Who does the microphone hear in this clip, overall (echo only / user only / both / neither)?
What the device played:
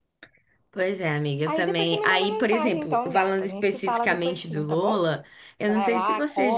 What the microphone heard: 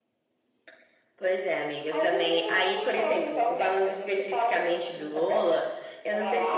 echo only